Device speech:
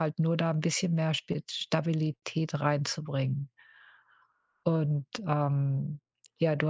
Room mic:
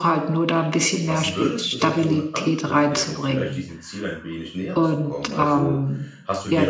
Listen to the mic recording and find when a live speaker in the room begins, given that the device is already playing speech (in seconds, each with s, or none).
1.0 s